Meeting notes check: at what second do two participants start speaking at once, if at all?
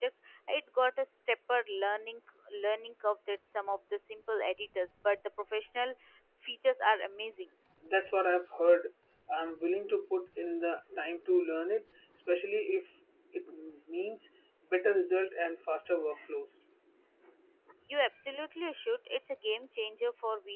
none

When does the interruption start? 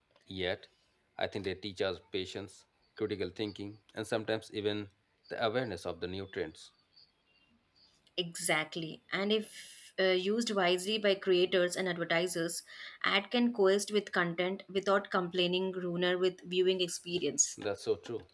none

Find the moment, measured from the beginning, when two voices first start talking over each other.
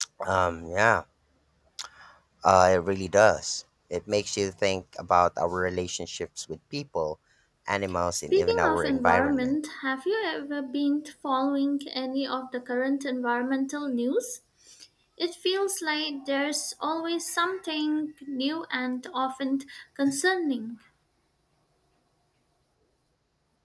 8.1 s

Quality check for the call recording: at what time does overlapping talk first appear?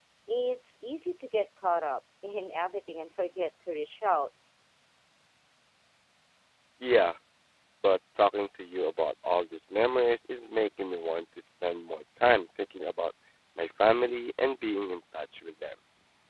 none

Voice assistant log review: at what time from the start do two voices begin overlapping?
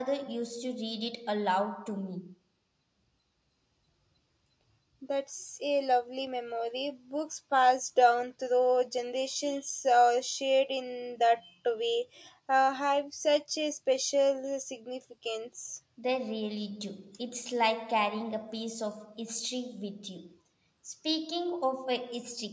none

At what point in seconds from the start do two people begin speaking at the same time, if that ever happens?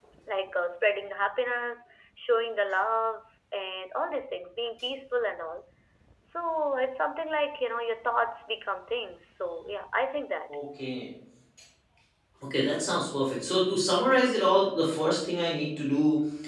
none

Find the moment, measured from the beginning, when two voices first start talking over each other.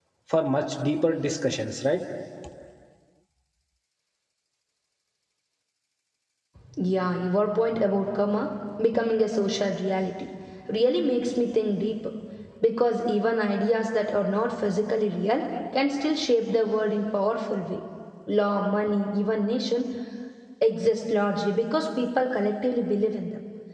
none

